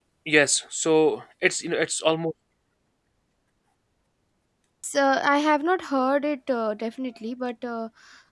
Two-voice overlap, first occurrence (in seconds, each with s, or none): none